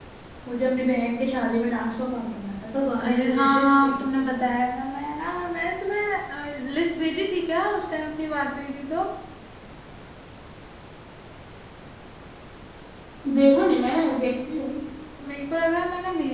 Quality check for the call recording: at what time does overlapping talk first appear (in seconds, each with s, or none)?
3.0 s